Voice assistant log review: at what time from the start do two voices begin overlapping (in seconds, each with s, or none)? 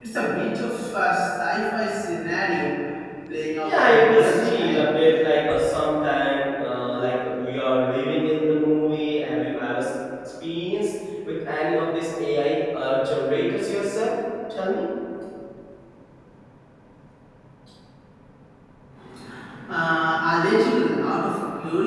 3.6 s